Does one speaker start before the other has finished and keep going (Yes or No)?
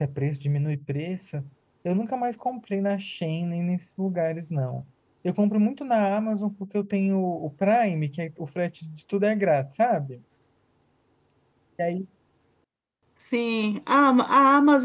No